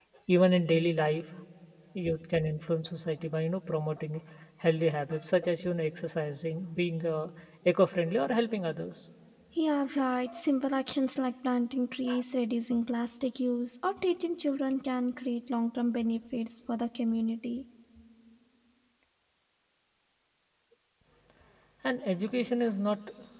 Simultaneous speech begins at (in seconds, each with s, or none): none